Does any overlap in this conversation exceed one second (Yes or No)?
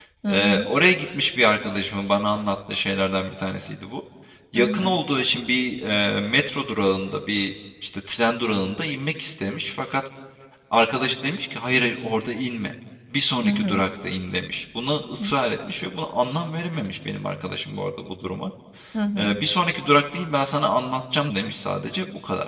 No